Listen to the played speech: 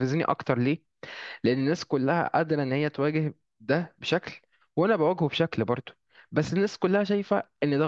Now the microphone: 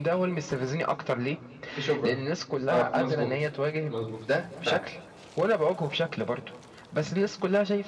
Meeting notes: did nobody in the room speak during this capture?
No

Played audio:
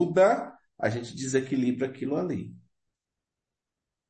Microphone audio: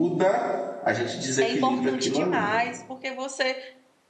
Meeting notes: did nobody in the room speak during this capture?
No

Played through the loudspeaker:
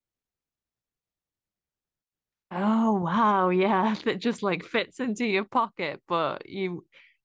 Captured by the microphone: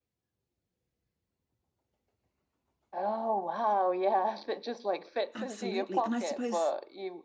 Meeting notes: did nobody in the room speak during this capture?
No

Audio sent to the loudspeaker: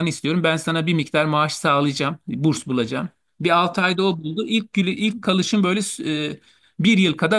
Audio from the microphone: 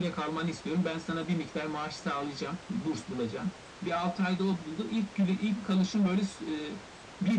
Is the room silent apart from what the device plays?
Yes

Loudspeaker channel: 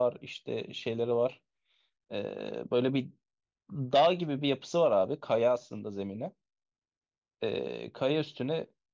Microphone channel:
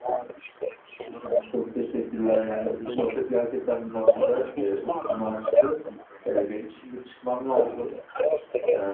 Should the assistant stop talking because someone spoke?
Yes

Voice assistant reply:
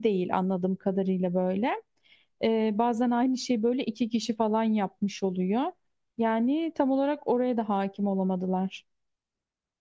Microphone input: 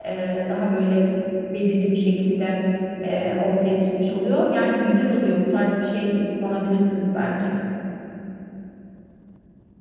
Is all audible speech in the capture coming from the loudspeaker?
No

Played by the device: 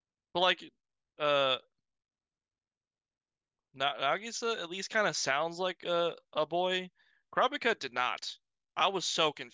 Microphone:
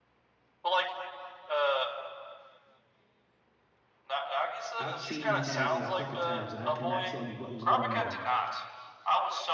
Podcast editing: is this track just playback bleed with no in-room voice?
No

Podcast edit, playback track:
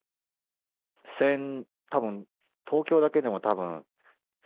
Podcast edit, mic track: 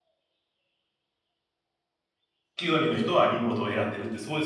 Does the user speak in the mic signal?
Yes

